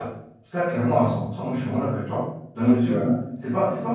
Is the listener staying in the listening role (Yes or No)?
Yes